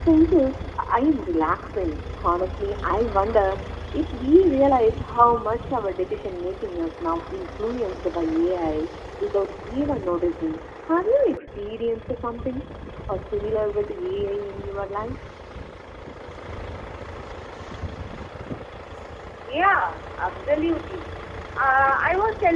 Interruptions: none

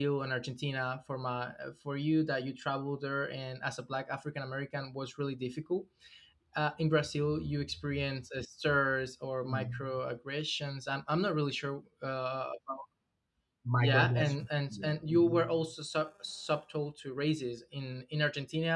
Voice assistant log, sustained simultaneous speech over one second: present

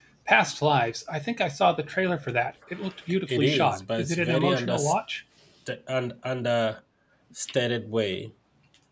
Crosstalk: present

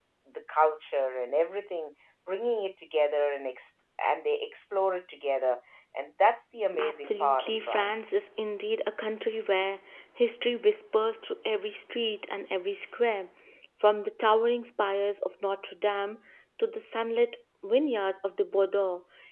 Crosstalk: present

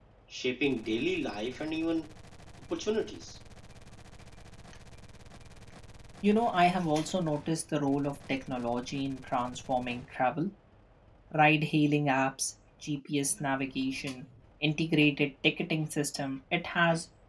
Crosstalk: none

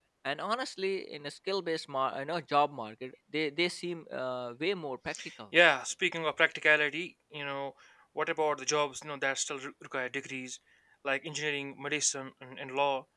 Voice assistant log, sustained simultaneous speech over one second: none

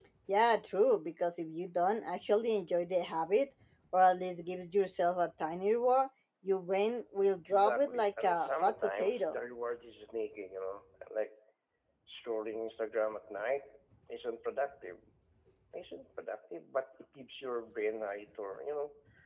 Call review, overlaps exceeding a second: present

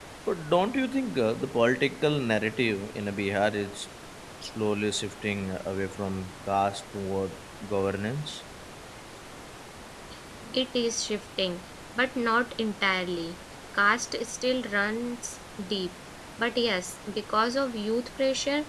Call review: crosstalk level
none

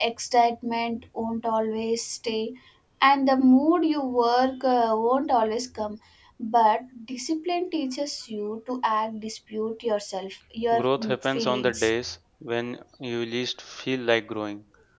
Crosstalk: present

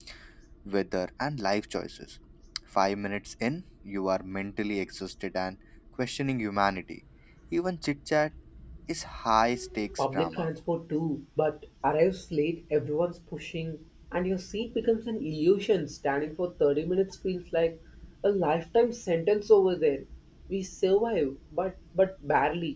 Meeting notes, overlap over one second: none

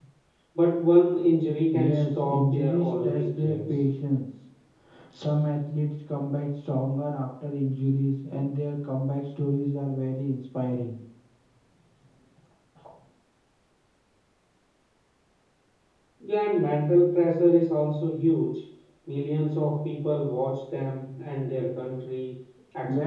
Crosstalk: present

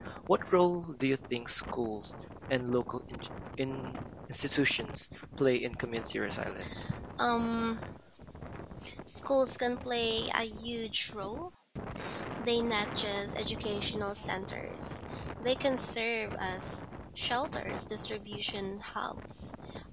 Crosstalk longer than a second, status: none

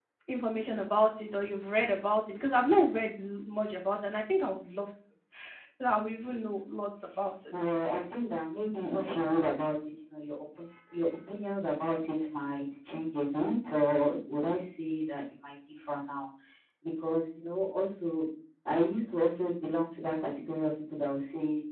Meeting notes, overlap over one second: none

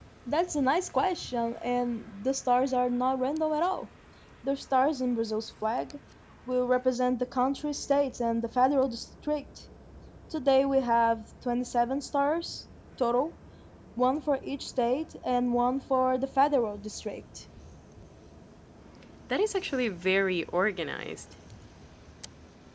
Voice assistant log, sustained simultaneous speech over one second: none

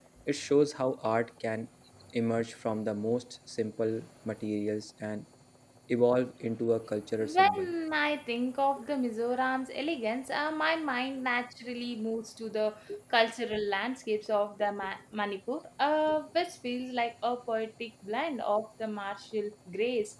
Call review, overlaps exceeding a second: none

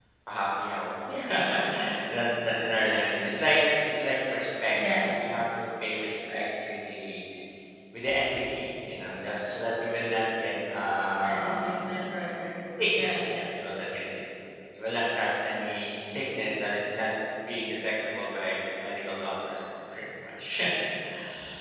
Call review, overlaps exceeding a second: none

